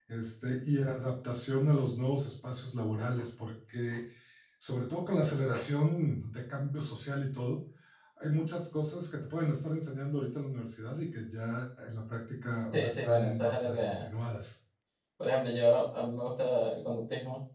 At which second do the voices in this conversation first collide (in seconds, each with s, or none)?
12.7 s